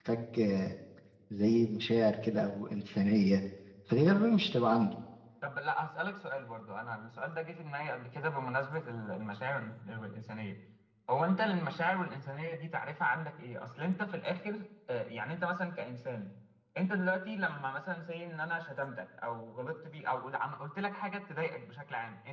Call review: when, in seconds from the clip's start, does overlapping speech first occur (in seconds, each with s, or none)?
none